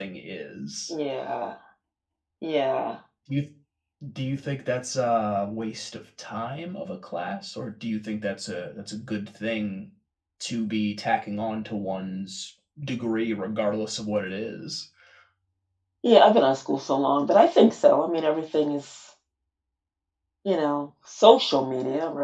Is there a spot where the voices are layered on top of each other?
No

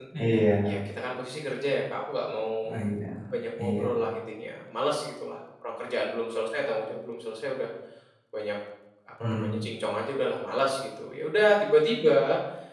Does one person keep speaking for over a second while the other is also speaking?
No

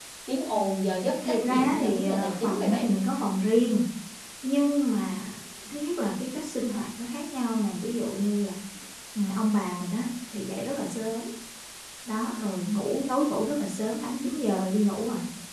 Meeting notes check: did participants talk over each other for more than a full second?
Yes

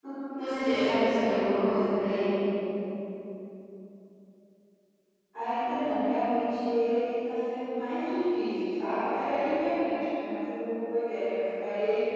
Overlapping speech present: No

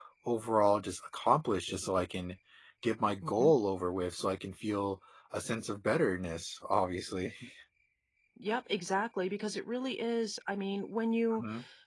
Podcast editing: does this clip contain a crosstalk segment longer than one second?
No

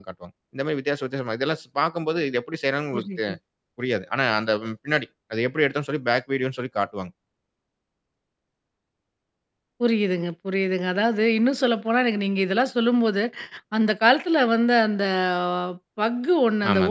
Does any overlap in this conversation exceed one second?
No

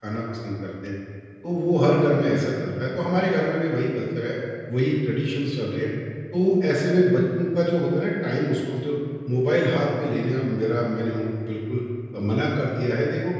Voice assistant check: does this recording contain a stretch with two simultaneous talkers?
No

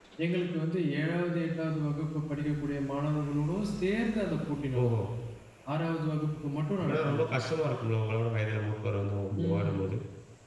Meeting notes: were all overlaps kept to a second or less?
Yes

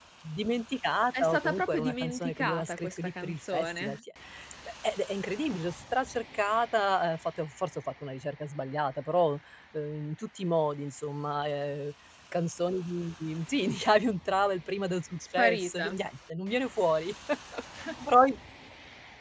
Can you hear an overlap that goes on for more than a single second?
Yes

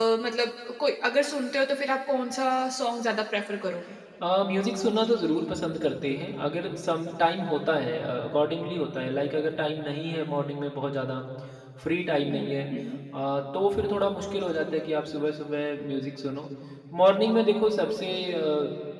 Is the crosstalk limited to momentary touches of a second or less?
Yes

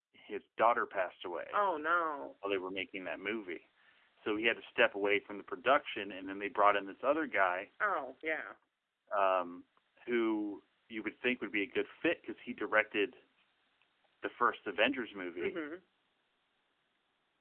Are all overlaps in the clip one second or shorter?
Yes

